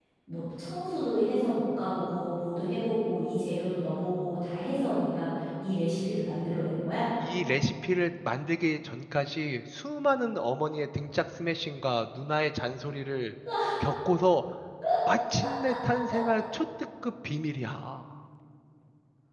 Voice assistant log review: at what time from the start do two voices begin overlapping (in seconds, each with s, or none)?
none